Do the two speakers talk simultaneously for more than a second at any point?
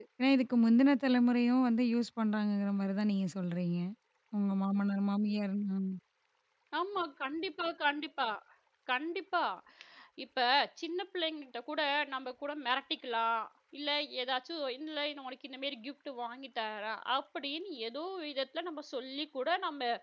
No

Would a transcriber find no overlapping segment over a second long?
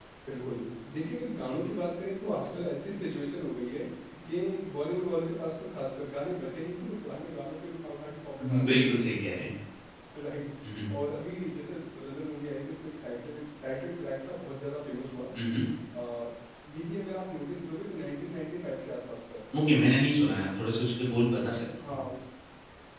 Yes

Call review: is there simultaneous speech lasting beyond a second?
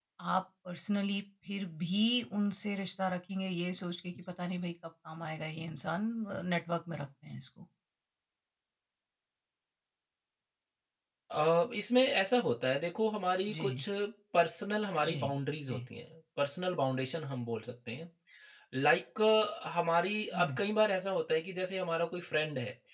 No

